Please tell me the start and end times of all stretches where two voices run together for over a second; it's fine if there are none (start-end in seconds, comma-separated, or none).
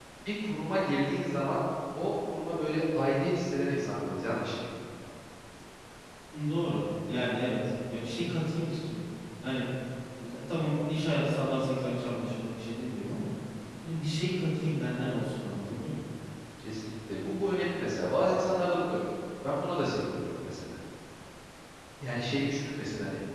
none